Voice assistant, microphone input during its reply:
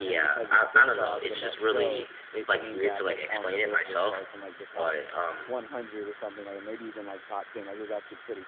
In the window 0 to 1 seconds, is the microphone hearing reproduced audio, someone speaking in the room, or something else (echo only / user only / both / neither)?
both